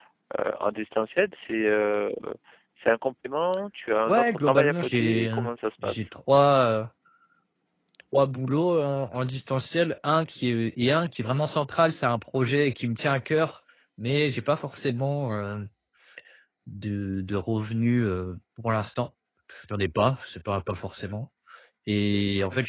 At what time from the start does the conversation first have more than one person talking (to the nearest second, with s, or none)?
4 s